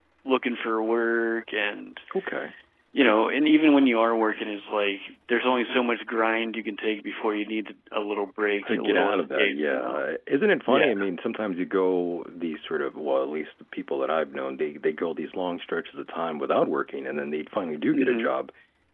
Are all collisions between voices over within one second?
No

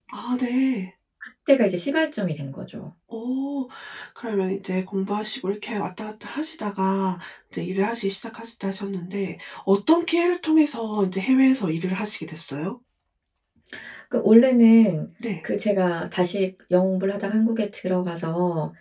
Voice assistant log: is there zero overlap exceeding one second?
Yes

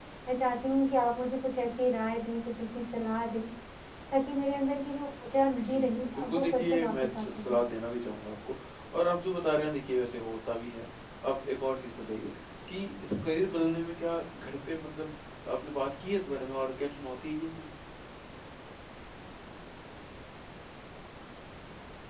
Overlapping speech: Yes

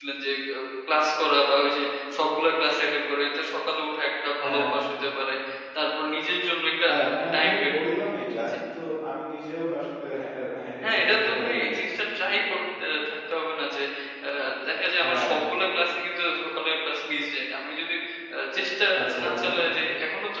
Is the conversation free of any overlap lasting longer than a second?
No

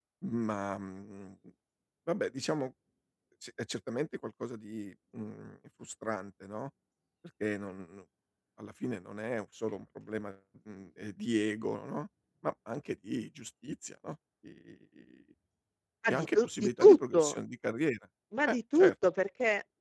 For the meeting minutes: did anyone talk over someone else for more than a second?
Yes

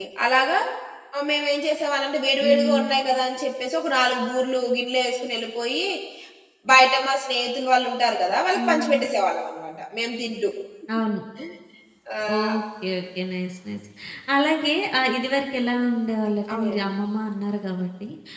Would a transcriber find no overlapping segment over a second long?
Yes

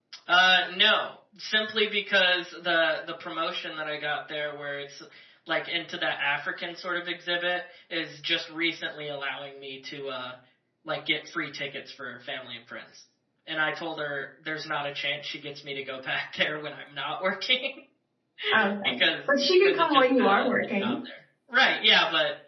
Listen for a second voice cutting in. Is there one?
Yes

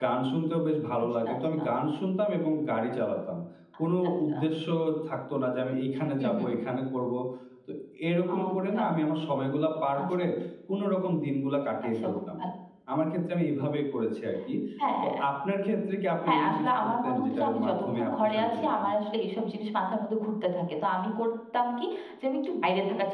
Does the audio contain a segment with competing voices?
Yes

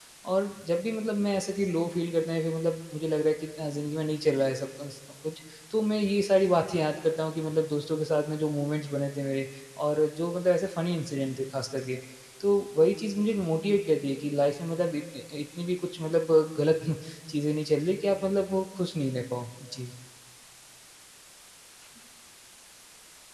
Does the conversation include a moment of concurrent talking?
No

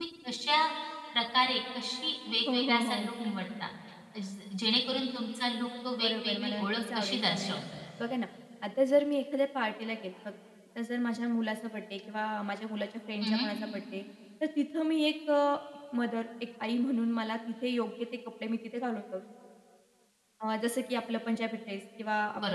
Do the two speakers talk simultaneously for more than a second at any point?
Yes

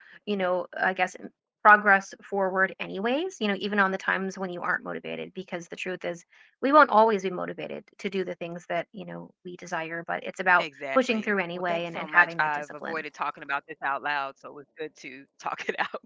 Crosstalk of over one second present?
Yes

